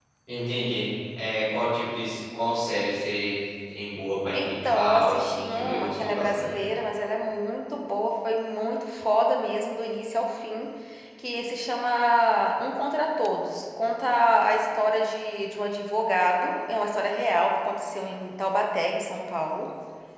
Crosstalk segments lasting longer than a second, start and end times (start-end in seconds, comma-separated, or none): 4.3-6.5